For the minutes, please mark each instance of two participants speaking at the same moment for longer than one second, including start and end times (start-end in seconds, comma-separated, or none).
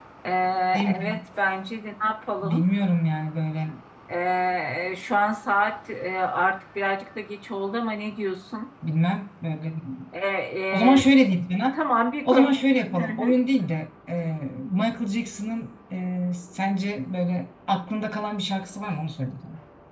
none